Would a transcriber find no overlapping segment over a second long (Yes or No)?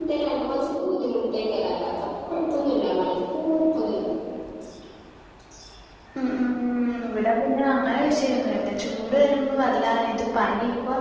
Yes